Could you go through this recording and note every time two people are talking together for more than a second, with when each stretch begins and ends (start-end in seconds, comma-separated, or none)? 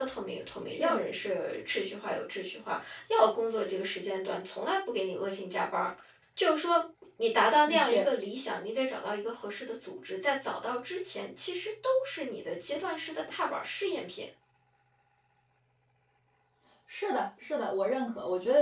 none